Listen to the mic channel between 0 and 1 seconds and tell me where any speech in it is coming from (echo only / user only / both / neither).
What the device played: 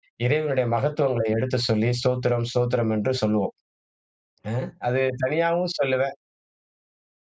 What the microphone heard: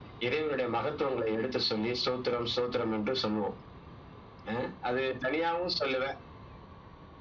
echo only